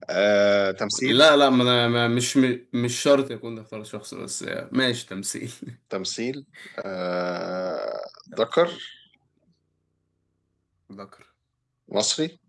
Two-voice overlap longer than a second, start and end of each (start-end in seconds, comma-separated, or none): none